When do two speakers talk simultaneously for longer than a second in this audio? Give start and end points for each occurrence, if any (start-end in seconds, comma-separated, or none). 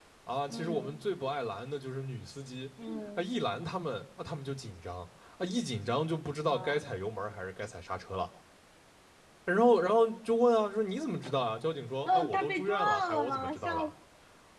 12.1-13.9